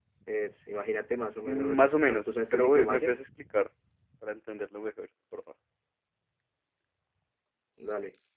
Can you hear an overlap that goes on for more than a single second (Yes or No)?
Yes